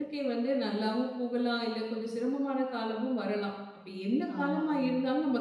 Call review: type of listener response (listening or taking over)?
listening